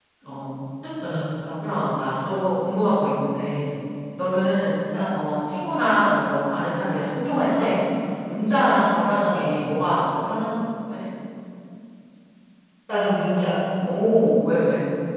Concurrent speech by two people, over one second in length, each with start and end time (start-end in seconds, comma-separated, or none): none